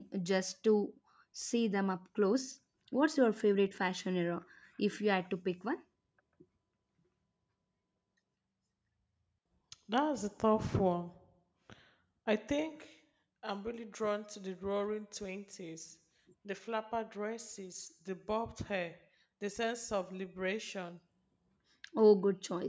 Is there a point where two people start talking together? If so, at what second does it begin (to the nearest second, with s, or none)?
none